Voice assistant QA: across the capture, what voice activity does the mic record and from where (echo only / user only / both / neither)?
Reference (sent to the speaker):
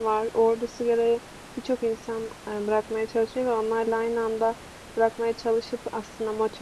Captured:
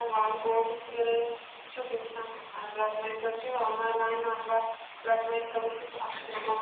both